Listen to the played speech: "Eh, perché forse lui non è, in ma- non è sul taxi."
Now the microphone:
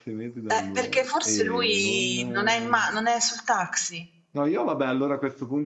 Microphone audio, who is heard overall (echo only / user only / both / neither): both